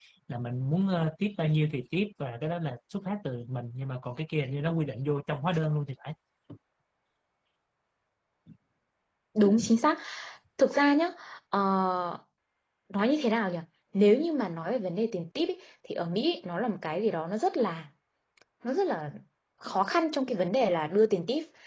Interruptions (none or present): none